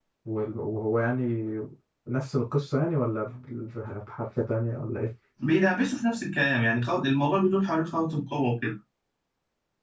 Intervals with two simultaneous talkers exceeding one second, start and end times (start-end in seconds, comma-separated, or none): none